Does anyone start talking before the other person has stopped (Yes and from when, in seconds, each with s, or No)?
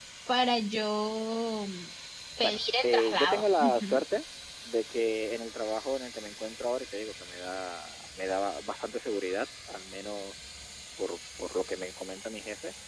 Yes, from 2.4 s